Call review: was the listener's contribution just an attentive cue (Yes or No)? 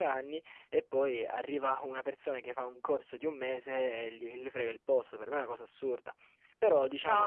Yes